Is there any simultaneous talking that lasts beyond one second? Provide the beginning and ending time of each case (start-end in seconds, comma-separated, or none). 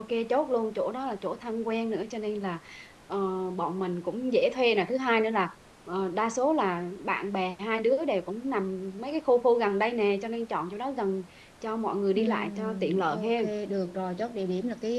12.2-13.5